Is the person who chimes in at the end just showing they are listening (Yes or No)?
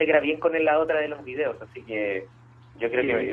No